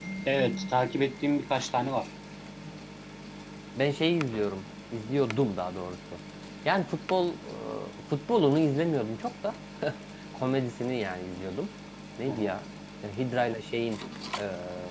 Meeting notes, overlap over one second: none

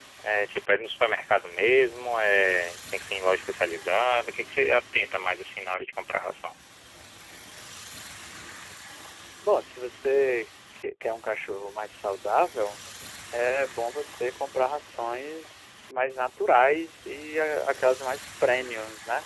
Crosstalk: none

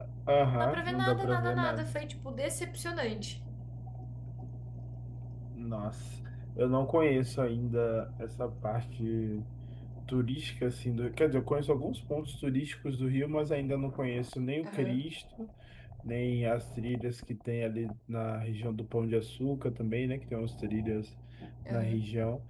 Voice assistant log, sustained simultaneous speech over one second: present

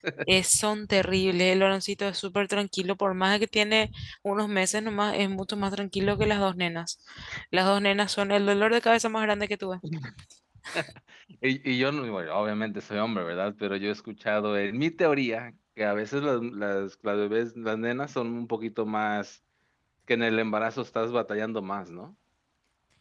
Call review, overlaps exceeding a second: none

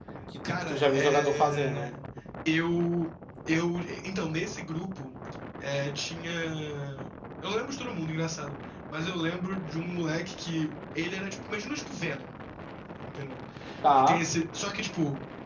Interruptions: present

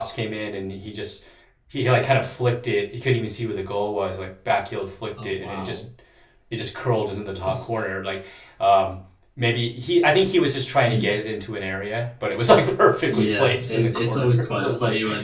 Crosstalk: present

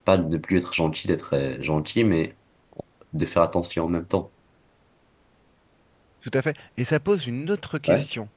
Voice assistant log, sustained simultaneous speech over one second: none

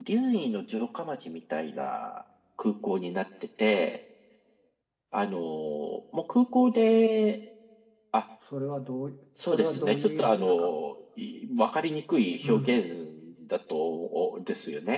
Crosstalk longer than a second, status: present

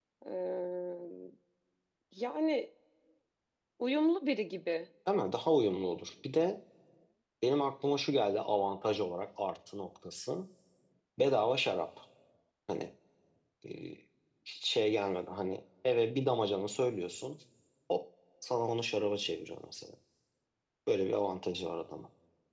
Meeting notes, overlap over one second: none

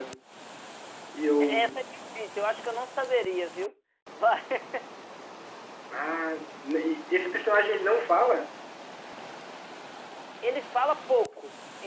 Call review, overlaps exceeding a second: none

